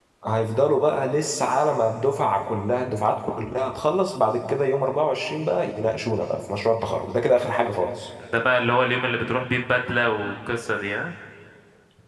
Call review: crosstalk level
none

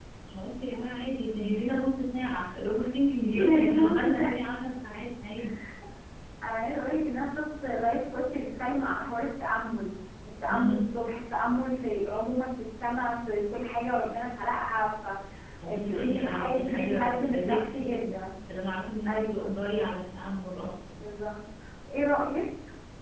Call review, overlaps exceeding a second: present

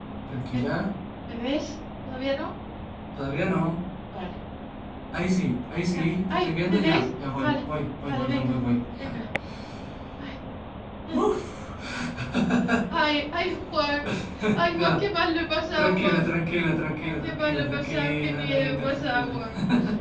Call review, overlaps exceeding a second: present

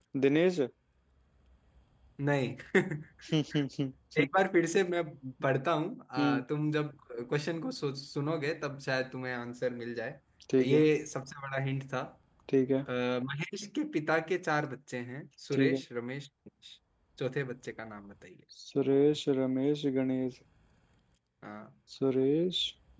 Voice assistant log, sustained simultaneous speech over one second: none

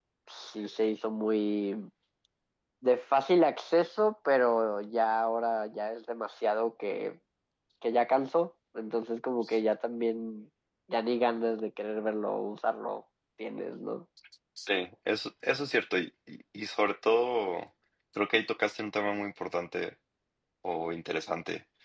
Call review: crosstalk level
none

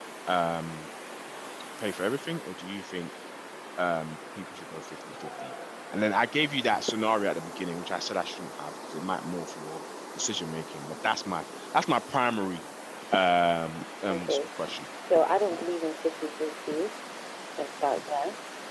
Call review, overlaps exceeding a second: none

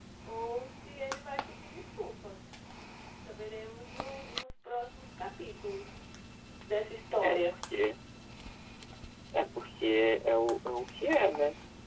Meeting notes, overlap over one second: none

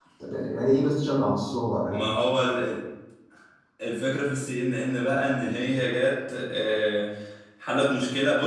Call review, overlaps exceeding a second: none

